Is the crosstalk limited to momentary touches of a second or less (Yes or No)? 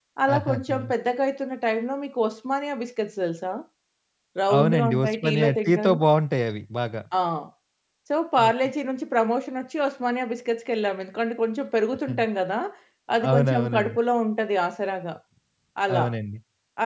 No